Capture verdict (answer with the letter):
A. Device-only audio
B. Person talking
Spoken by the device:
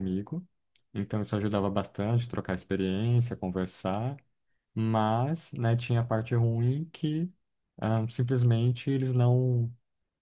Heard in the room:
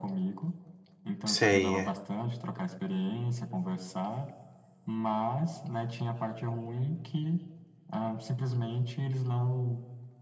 B